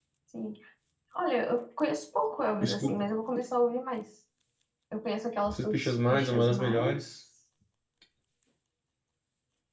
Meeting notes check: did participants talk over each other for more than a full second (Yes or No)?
Yes